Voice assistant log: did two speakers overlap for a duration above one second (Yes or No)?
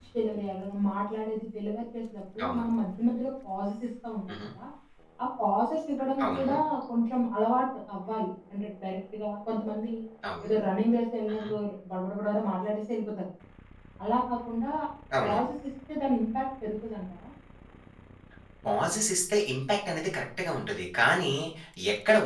No